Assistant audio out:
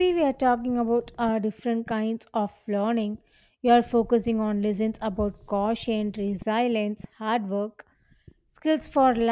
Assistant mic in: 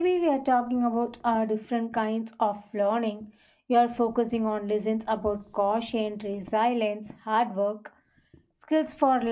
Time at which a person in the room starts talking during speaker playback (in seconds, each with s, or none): none